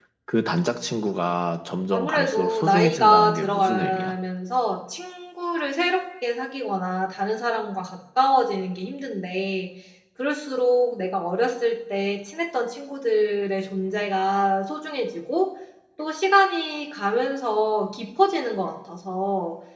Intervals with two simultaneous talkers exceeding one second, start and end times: 1.9-4.1

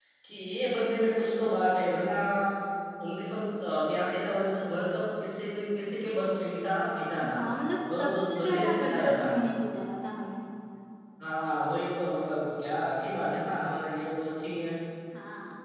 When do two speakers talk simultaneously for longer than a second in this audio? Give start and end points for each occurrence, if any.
7.9-9.3

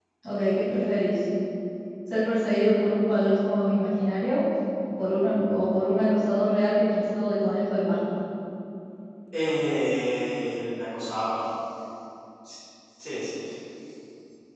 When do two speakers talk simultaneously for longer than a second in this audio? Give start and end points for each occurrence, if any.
none

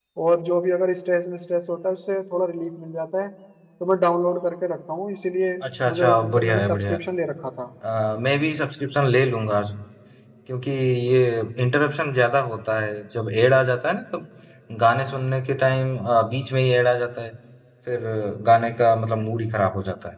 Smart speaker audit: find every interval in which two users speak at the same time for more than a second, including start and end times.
5.7-6.9

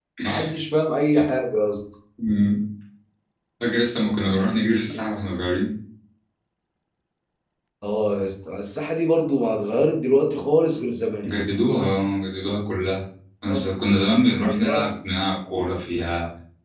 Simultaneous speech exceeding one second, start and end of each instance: none

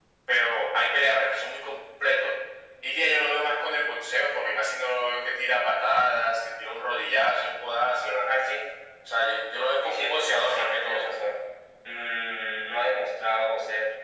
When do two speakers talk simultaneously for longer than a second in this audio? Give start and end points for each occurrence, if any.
9.8-11.1

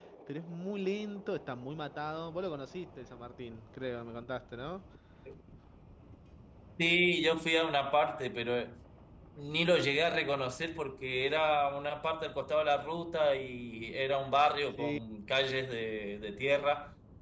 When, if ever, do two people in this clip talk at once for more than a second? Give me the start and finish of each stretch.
none

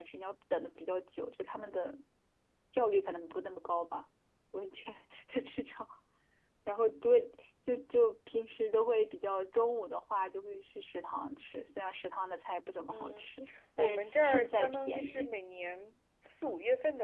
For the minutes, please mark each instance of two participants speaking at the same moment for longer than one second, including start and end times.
13.8-15.3

